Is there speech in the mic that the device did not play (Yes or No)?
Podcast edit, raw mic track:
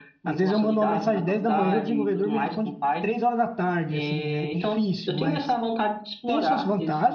Yes